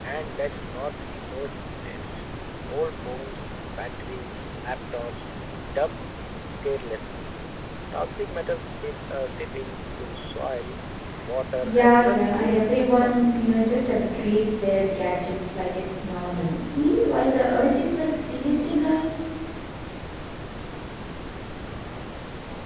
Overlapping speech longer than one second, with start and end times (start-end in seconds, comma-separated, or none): 11.6-13.3